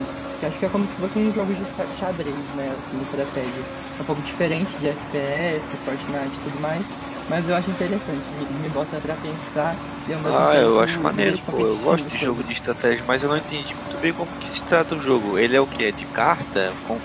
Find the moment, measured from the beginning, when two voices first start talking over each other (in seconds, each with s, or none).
10.2 s